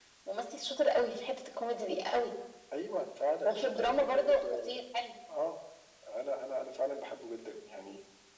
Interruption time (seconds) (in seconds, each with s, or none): 3.5 s